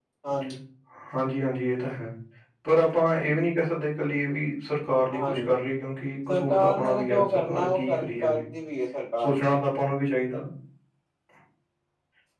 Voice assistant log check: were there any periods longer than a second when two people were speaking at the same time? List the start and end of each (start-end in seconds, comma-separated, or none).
6.3-8.4